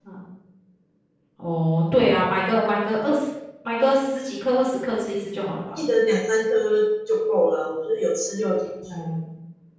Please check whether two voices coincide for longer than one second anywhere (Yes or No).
No